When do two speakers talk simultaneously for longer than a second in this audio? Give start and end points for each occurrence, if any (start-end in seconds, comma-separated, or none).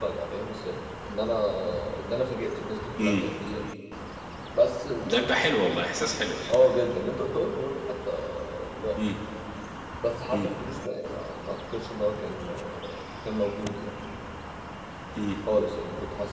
none